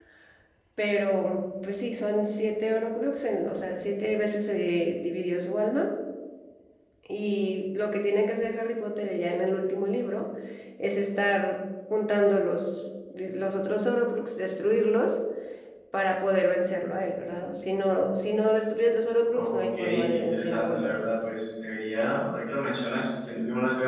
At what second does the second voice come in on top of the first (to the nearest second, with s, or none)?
19 s